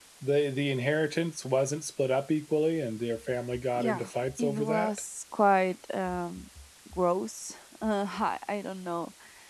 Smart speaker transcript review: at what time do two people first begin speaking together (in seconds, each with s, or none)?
3.5 s